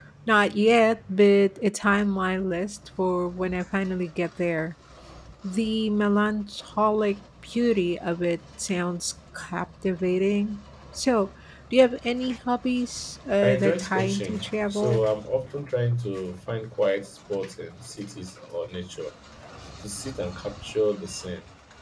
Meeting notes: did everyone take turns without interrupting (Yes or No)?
No